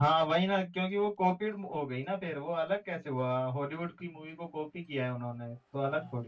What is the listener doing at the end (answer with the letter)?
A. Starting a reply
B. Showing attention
A